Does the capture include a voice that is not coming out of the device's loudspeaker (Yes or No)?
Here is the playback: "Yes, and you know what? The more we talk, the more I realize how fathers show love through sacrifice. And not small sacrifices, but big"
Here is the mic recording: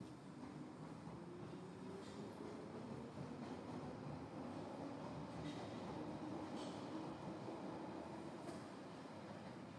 No